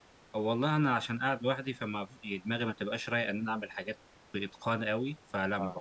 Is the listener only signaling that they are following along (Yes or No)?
Yes